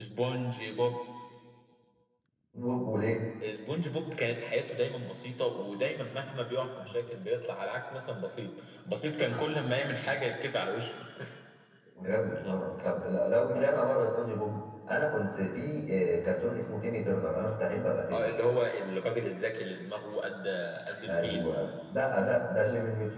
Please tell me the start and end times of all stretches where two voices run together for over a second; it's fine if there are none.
none

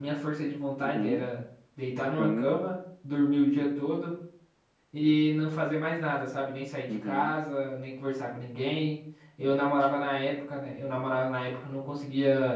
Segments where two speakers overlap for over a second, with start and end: none

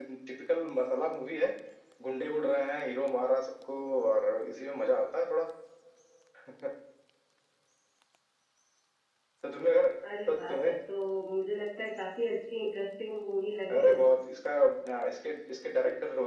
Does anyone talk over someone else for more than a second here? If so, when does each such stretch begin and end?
none

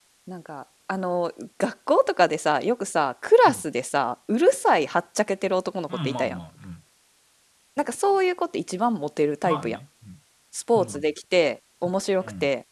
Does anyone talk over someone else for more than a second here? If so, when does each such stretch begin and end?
none

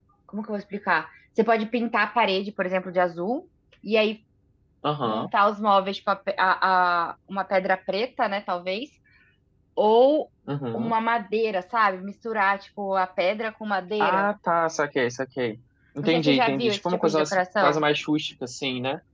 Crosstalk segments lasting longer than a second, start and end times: 16.0-17.8

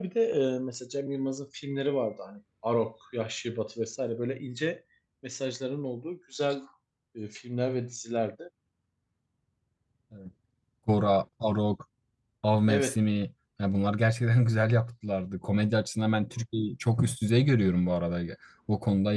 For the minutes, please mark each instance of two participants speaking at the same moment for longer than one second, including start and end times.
none

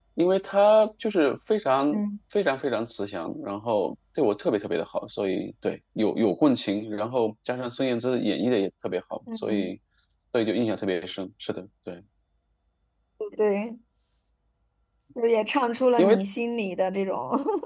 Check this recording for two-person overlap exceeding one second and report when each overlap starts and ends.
none

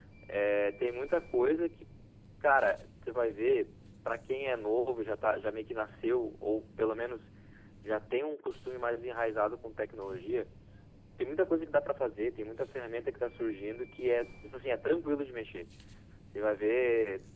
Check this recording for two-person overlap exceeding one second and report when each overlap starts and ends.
none

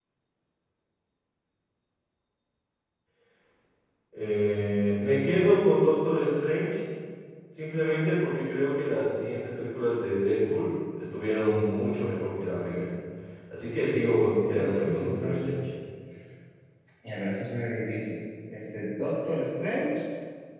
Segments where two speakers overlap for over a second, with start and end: 14.4-15.6

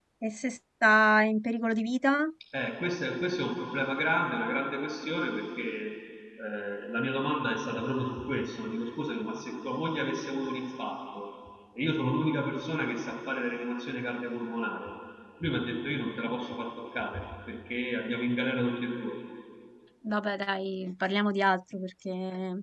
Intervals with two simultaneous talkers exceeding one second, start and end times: none

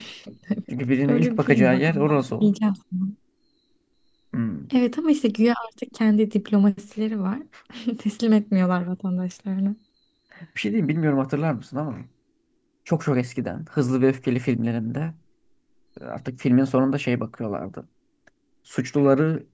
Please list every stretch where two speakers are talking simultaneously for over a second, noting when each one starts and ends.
1.1-2.5

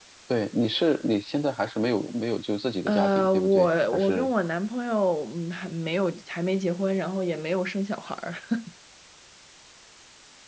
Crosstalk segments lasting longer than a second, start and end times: 2.9-4.3

